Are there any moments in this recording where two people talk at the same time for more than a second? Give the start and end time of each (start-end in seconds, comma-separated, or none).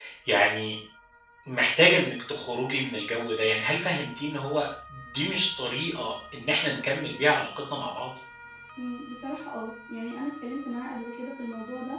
none